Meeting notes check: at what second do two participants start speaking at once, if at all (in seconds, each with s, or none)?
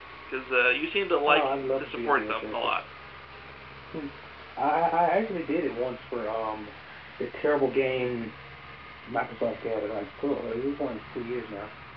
1.3 s